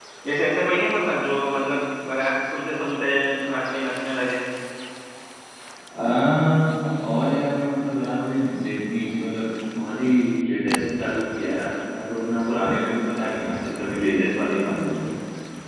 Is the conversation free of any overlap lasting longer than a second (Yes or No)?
Yes